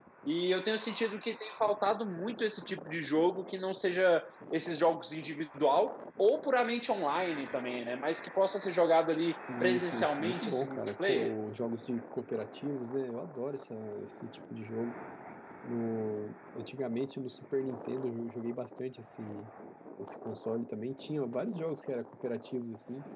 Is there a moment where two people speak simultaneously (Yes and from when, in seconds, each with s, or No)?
Yes, from 9.5 s